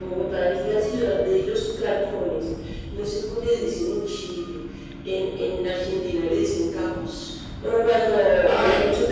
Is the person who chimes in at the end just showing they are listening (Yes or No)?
Yes